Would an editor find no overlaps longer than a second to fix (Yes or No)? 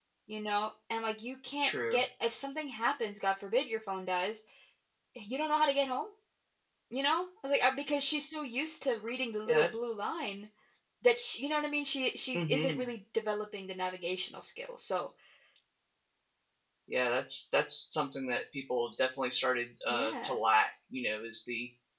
Yes